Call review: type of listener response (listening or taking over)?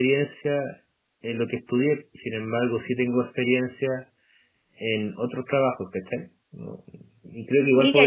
listening